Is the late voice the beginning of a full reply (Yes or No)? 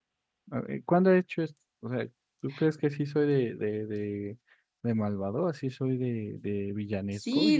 Yes